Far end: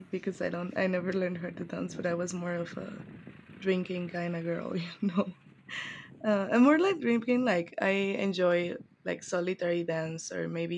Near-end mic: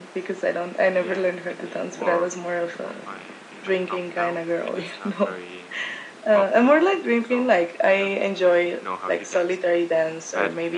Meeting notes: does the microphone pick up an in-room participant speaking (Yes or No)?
Yes